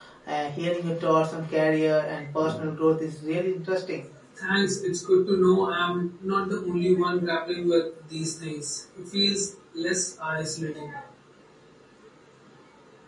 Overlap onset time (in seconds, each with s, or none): none